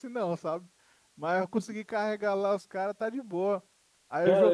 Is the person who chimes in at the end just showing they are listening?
No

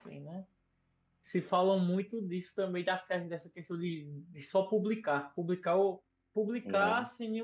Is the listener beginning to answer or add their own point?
No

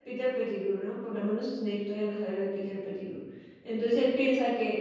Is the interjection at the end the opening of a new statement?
No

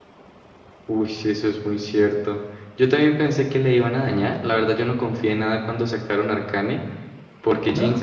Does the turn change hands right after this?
No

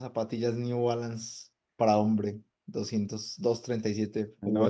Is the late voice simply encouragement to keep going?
No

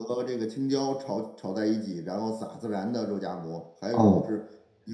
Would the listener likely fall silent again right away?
Yes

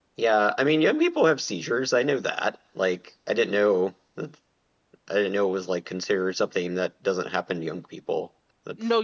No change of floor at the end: No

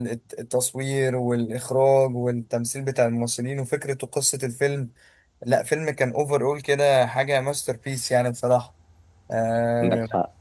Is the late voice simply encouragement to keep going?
No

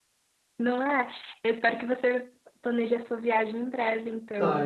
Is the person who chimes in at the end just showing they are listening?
No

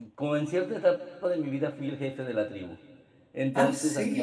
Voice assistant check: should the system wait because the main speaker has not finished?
Yes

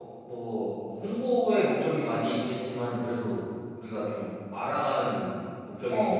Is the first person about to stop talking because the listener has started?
Yes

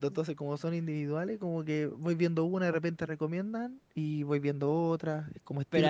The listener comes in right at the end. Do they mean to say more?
Yes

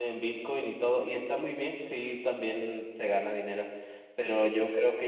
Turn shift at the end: No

